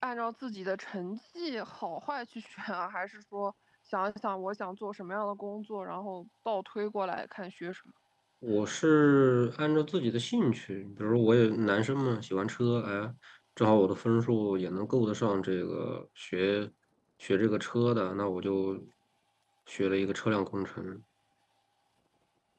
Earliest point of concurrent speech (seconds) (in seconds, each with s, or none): none